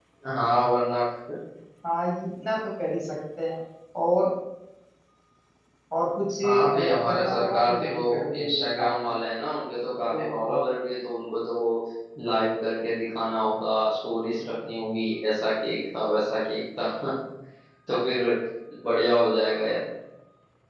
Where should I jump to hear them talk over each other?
6.4 s

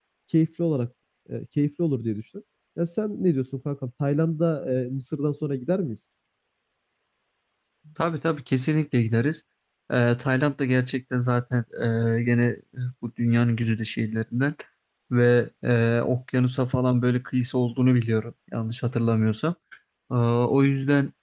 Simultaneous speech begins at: none

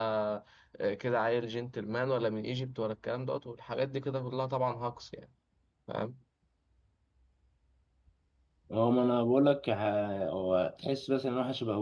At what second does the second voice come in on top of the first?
none

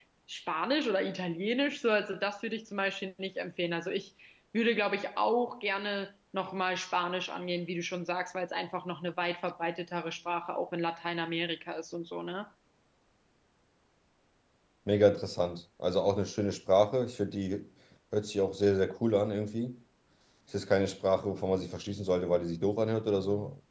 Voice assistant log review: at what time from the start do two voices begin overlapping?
none

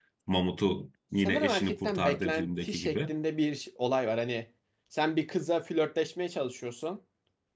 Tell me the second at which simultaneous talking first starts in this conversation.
1.2 s

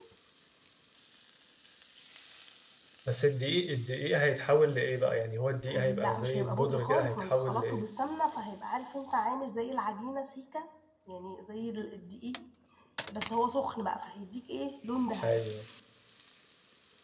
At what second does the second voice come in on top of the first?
5.7 s

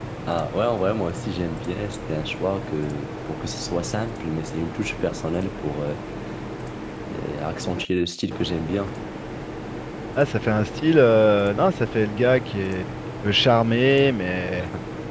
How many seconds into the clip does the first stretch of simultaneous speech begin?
none

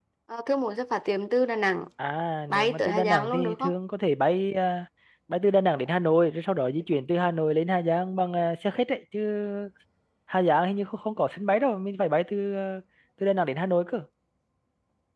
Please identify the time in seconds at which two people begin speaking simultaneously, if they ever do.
2.5 s

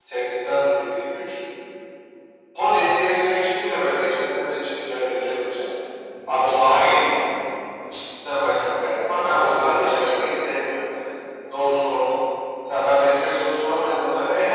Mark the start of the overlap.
none

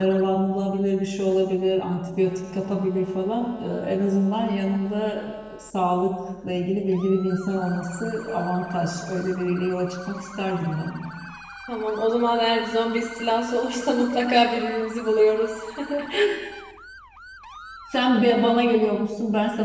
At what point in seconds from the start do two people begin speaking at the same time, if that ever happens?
none

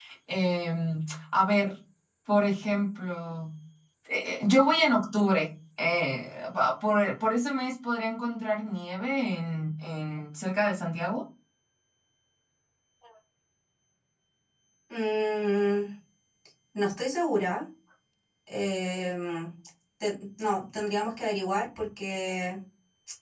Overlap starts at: none

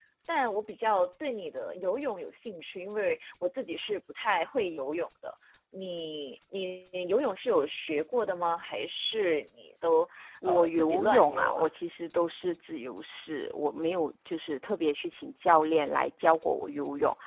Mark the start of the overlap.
10.4 s

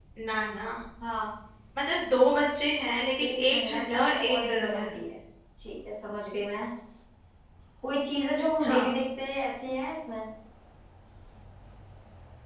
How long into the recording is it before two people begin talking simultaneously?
3.2 s

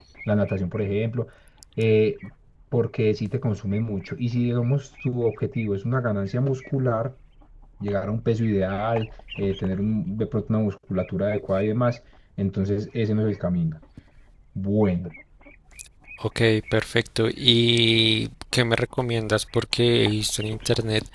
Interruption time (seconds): none

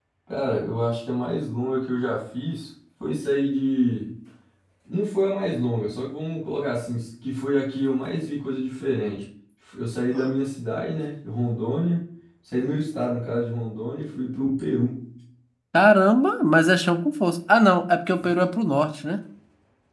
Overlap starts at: none

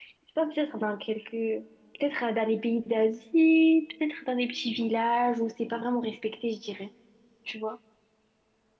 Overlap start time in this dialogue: none

